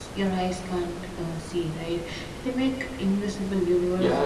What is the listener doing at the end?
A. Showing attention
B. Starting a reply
B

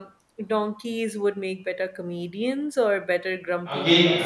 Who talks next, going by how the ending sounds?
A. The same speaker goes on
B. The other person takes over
B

